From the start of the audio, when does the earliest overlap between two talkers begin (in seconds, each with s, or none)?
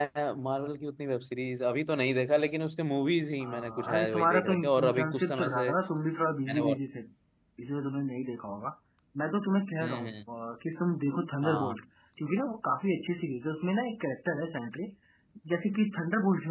3.4 s